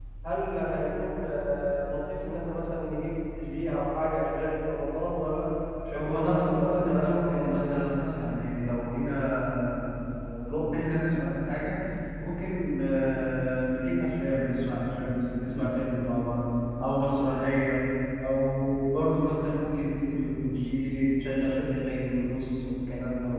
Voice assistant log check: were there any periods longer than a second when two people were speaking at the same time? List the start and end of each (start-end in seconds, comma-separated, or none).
6.0-7.8